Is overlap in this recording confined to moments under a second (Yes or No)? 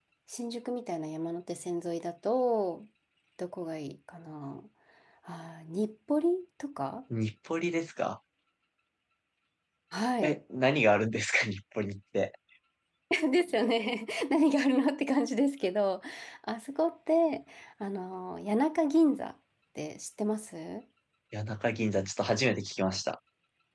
Yes